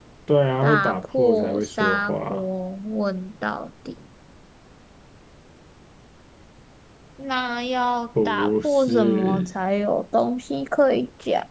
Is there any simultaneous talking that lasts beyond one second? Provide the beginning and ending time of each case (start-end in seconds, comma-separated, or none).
0.6-2.4, 8.2-9.5